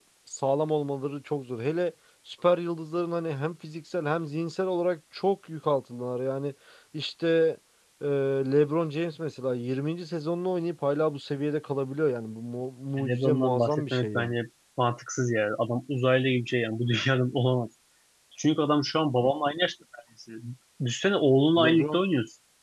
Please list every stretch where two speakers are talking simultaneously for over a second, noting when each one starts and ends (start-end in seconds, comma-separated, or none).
13.0-14.3